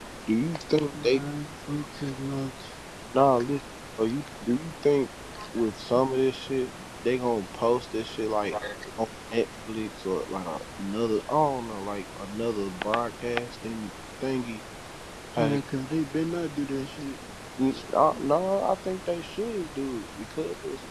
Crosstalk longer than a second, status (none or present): none